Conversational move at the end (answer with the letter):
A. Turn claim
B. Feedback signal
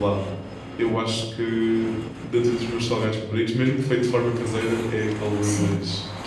B